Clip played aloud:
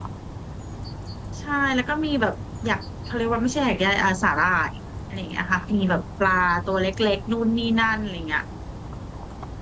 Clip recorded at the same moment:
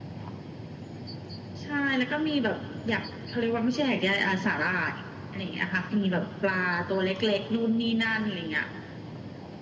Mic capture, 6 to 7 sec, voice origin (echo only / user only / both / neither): echo only